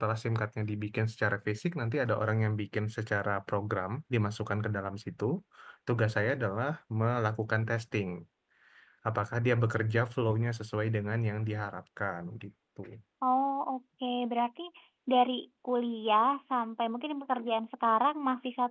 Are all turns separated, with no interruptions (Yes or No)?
Yes